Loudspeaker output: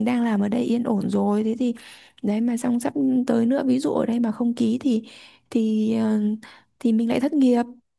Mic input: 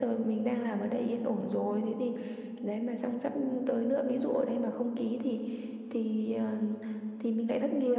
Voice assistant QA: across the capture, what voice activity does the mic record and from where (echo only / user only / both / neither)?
echo only